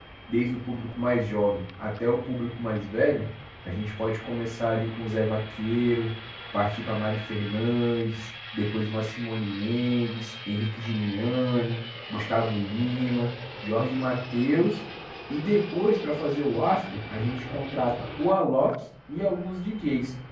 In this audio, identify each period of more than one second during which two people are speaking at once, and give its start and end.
none

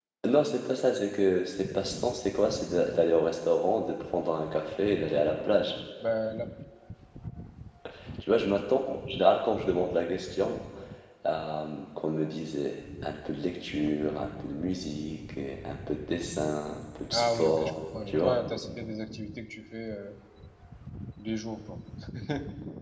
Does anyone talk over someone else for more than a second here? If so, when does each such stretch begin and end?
17.1-18.4

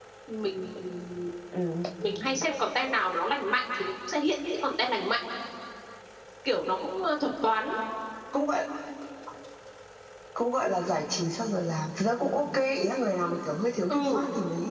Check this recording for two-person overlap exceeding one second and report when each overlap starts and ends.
none

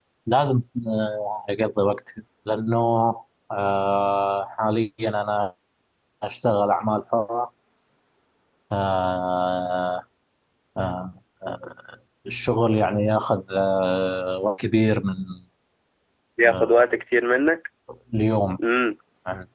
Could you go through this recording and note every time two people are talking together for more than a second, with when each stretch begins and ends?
none

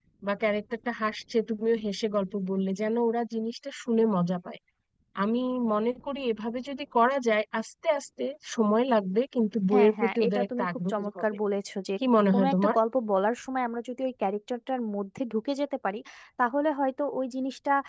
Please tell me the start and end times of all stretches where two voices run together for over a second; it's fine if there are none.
9.7-11.2

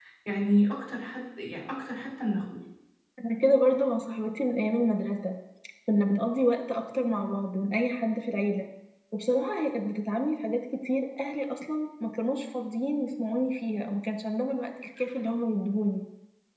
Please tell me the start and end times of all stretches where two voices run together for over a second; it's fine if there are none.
none

